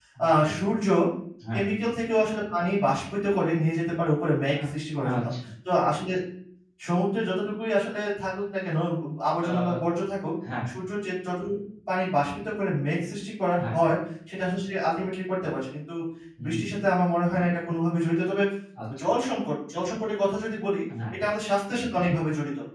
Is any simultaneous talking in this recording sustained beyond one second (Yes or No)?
No